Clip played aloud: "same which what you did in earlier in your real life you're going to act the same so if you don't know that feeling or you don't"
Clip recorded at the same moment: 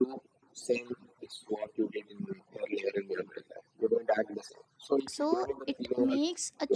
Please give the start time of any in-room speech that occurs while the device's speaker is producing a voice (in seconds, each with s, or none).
5.1 s